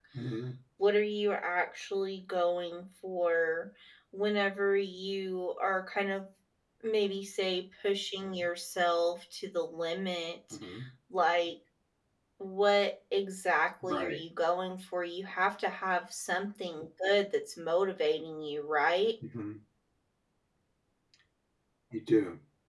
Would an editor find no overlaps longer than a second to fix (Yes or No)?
Yes